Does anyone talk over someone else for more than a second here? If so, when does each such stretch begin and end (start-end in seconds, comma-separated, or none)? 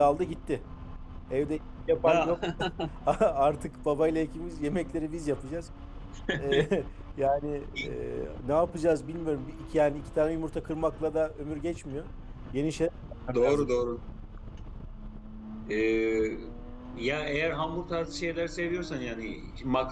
none